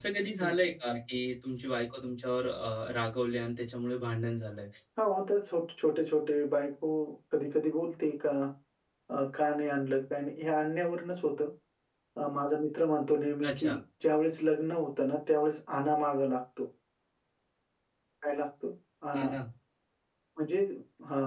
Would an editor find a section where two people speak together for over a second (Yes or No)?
No